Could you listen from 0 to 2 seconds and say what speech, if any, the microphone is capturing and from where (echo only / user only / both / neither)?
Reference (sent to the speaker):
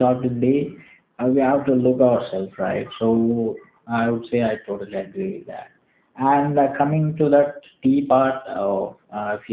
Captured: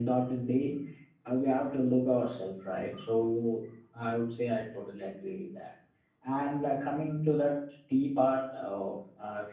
echo only